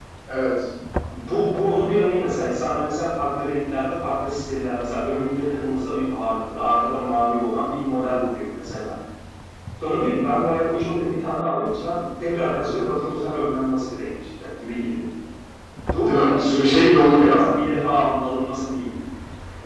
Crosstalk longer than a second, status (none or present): present